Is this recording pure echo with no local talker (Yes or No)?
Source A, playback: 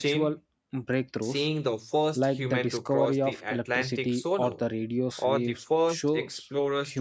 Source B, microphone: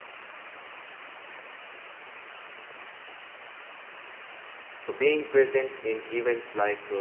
No